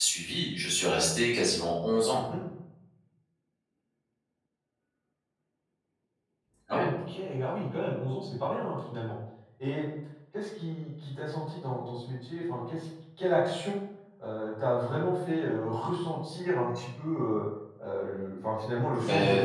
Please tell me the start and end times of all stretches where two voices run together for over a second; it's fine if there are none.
none

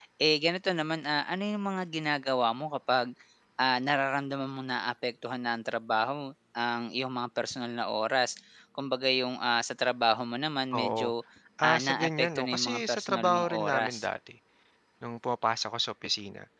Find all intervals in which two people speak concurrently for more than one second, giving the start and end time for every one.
11.7-13.9

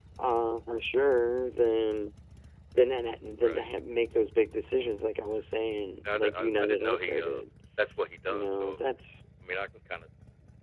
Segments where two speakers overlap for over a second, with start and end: 6.2-7.4

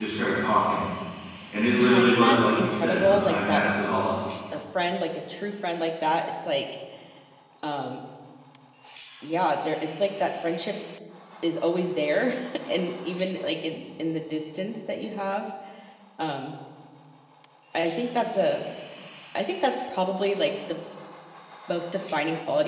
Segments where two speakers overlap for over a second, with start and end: 1.8-3.7

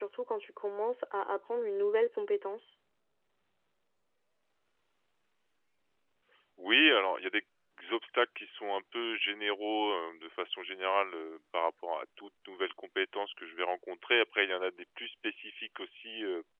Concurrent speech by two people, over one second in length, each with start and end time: none

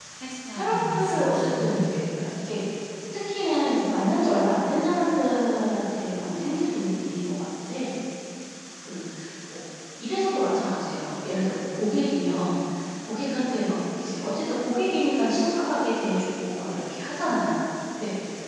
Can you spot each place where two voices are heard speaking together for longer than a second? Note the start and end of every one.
0.5-1.9

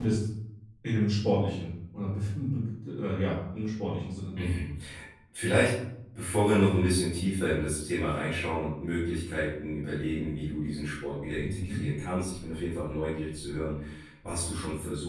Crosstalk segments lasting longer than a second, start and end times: none

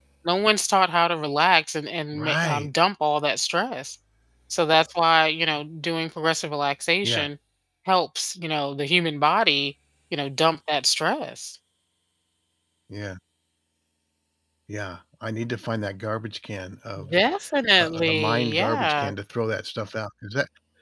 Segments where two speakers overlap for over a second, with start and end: 17.8-19.1

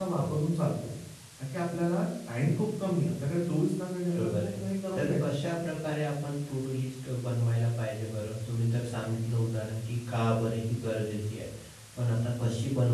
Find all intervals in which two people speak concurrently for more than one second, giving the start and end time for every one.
none

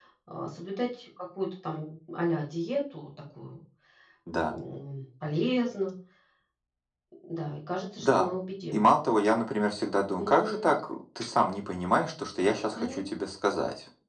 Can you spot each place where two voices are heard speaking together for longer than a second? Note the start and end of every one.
none

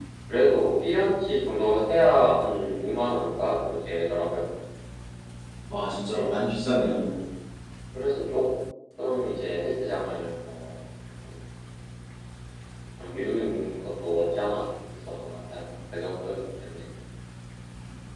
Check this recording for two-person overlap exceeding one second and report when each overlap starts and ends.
none

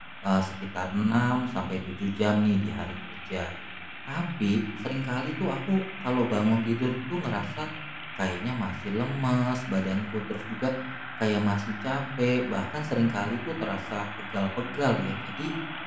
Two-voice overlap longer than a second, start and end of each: none

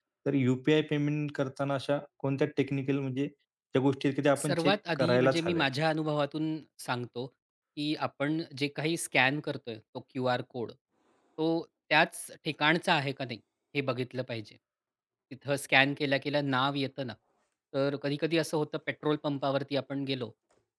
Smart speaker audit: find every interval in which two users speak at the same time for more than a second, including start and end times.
4.4-5.7

